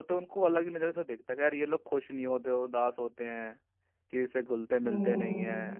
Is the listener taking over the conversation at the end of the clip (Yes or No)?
No